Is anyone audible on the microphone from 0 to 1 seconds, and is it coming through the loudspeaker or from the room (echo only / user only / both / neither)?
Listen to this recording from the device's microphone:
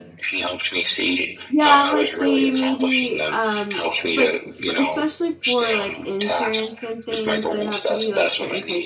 echo only